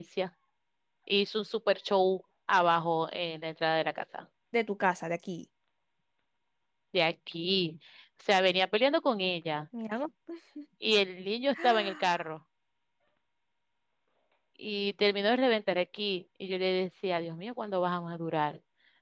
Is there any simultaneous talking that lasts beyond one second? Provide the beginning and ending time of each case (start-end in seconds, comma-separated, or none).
none